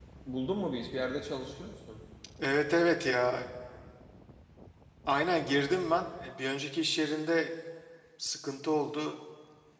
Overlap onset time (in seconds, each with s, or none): none